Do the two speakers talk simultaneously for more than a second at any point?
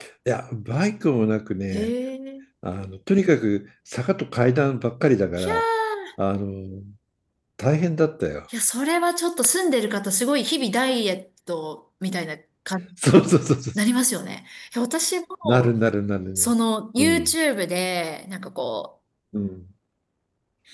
No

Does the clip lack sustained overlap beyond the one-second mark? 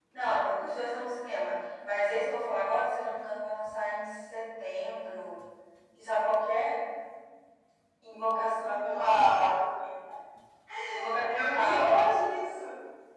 No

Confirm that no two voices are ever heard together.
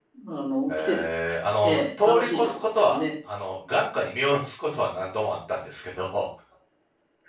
No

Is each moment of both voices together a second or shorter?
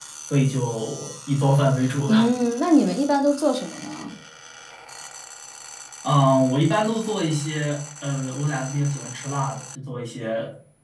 Yes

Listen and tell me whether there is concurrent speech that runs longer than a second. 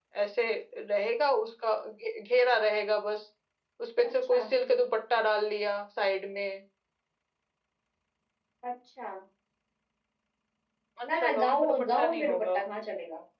Yes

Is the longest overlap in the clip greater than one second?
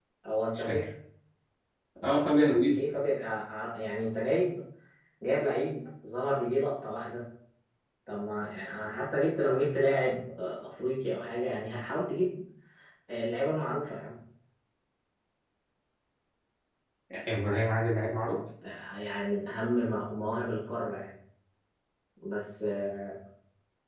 No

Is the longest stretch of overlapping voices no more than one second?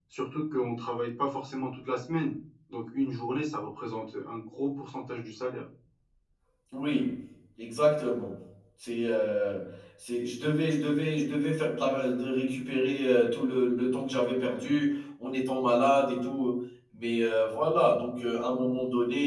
Yes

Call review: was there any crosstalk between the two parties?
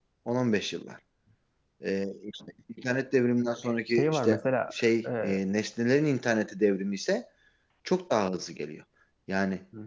Yes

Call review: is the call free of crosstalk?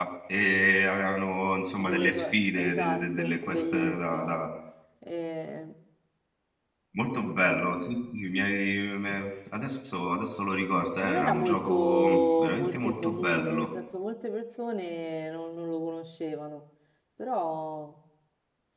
No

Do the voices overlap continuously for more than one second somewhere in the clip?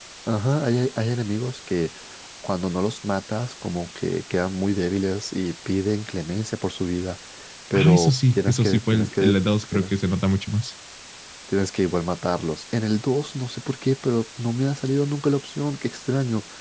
Yes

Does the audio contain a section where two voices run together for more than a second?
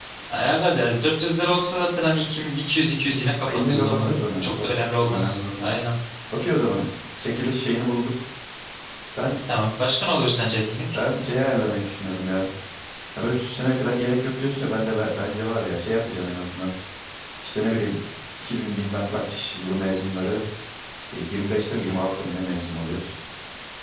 Yes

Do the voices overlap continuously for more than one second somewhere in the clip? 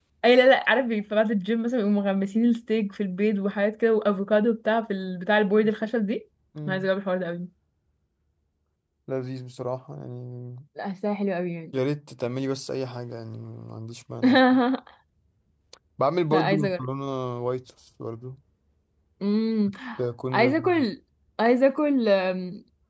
No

